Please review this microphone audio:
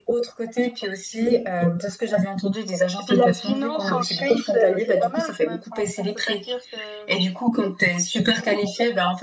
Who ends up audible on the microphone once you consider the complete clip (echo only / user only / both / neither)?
both